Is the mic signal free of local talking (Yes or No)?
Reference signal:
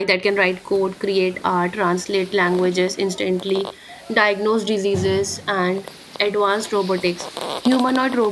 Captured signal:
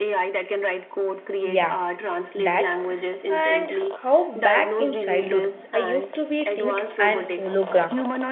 No